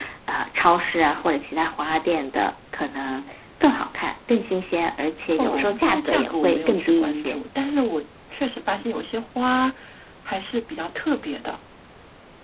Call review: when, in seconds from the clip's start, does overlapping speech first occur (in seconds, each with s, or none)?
5.3 s